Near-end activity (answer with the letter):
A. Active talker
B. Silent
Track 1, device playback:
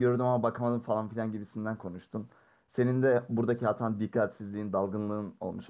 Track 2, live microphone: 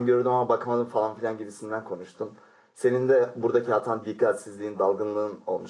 B